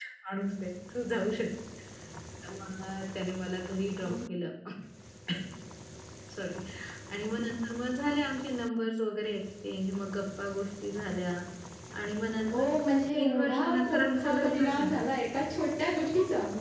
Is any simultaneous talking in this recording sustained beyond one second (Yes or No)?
Yes